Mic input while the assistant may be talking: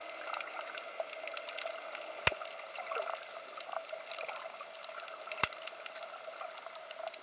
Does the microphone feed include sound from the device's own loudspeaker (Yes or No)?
No